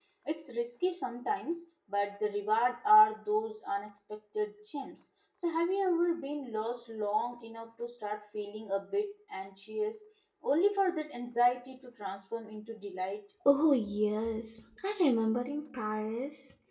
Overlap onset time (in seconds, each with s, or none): none